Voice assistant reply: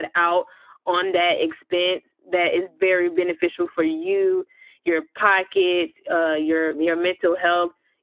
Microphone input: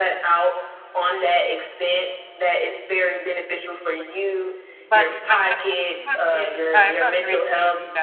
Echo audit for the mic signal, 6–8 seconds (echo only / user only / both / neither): both